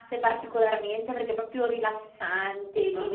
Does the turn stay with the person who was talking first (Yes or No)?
No